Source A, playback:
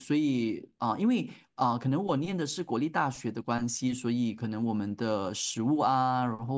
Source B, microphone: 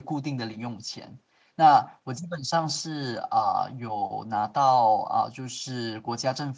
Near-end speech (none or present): present